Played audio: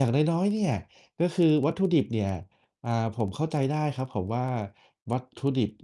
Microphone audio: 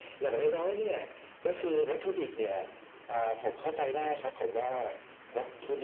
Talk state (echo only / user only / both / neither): echo only